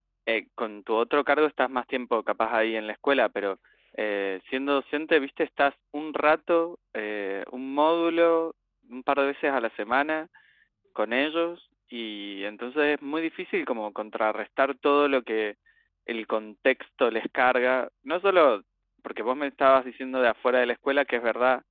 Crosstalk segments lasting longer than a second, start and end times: none

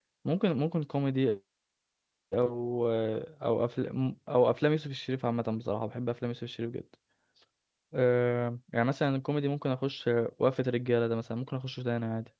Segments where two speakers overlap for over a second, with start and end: none

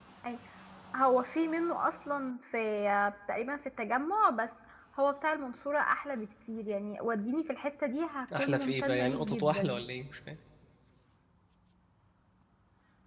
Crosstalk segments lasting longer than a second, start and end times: 8.4-9.8

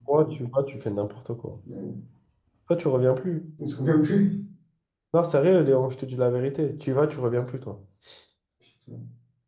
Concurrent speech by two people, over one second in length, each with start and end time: none

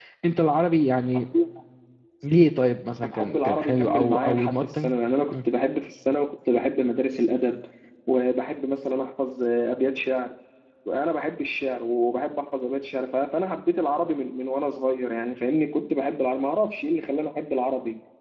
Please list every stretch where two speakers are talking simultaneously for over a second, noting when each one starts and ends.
3.1-4.9

